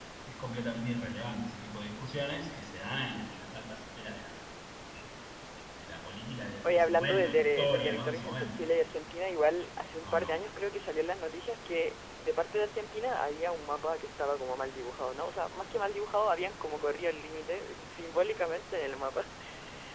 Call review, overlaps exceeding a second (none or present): present